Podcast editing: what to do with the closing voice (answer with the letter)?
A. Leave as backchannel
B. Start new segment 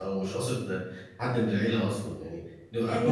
B